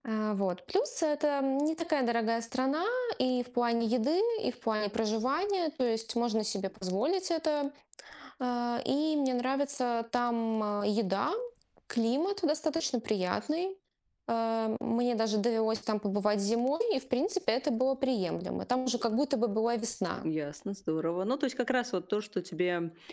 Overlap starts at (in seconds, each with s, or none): none